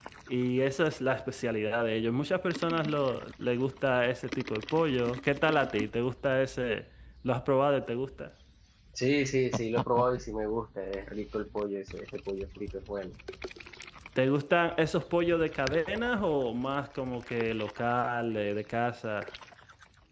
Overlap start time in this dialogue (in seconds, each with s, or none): none